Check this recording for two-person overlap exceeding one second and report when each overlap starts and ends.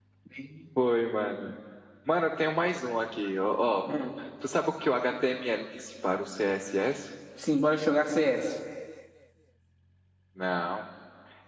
none

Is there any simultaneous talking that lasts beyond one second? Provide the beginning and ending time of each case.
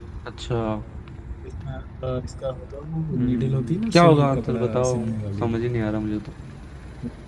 3.1-5.0

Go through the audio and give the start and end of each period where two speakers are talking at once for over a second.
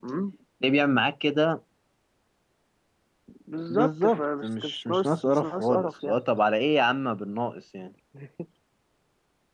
3.7-6.2

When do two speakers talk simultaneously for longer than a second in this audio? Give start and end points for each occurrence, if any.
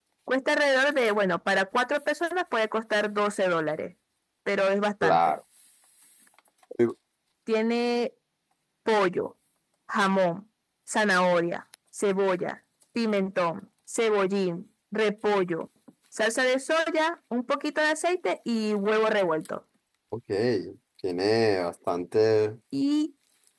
none

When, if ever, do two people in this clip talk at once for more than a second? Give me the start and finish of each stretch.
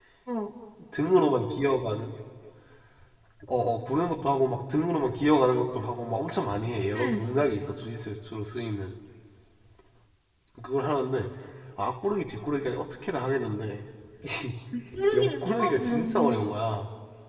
15.1-16.4

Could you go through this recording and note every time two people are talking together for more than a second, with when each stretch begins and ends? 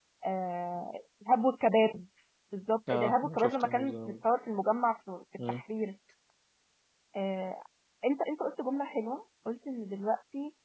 2.9-4.1

